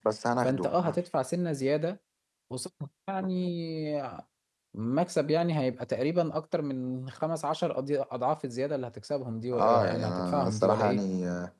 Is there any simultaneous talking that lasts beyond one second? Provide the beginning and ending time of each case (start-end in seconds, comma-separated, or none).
9.5-11.0